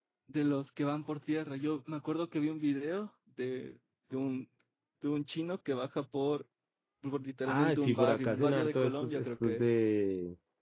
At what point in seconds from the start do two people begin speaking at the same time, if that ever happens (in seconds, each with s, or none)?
7.5 s